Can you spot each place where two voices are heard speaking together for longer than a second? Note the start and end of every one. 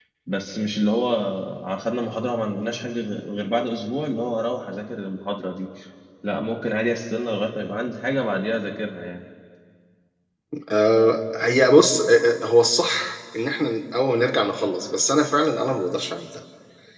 none

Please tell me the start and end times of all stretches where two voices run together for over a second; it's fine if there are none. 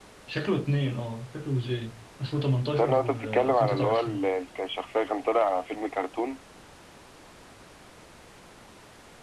2.7-4.2

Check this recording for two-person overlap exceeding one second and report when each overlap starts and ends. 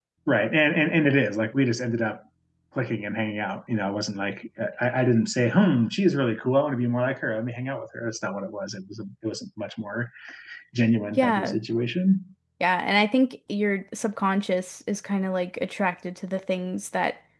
none

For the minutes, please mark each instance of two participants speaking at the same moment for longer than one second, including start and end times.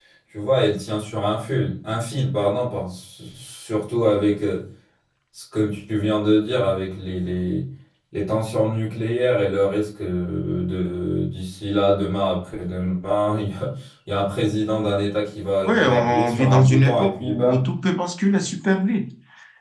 15.6-17.6

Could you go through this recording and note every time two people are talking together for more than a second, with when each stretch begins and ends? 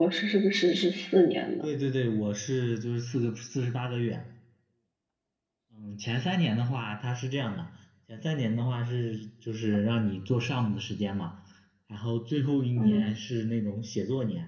none

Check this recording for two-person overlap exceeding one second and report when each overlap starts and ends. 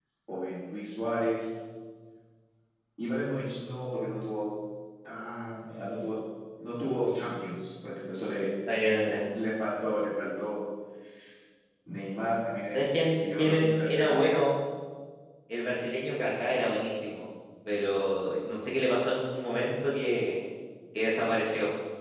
12.7-14.4

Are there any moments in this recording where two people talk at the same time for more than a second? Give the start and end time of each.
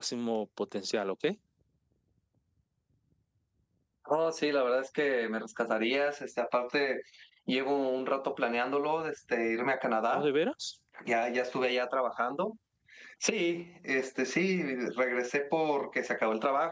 none

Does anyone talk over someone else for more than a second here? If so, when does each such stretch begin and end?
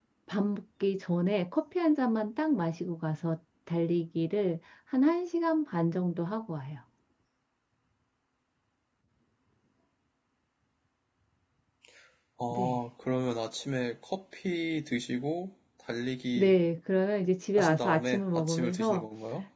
17.6-19.1

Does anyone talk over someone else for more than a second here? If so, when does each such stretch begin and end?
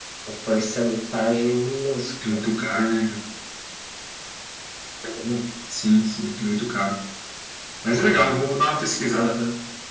none

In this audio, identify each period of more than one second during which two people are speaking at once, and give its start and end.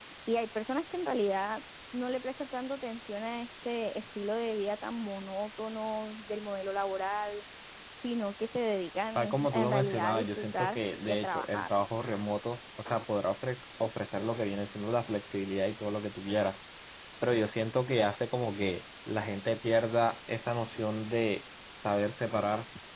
9.2-11.7

